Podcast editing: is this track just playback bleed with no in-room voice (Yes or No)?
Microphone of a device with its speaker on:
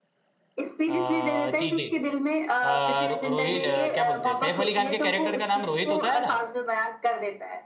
No